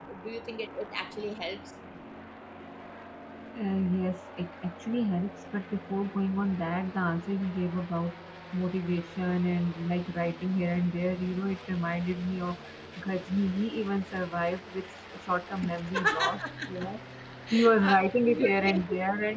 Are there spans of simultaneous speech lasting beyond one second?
Yes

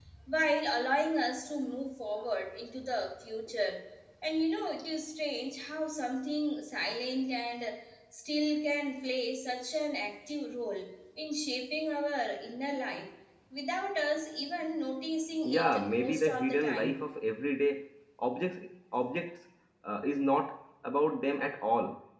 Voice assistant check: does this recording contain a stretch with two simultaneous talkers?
Yes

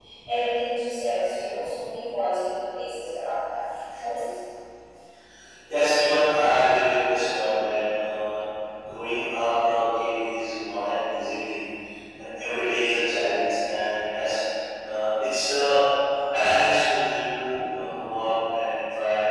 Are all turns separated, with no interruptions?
Yes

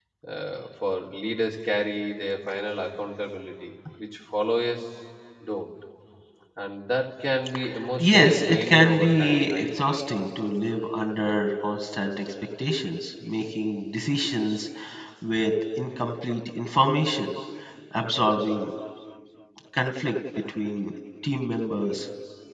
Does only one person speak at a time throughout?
No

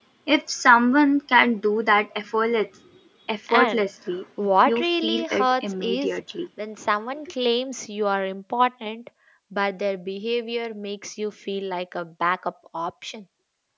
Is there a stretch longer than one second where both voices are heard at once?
Yes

